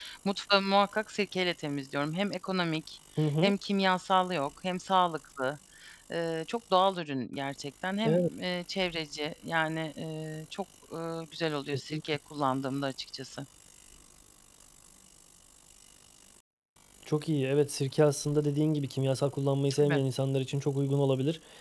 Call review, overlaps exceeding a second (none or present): none